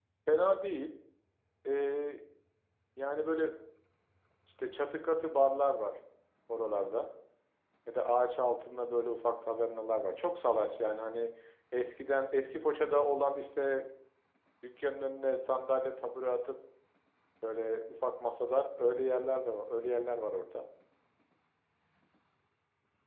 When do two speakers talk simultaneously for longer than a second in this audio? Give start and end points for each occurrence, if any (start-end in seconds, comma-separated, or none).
none